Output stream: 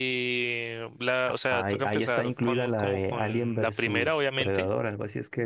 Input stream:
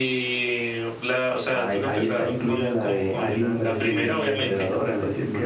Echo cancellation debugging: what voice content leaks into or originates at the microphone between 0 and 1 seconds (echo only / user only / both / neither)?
echo only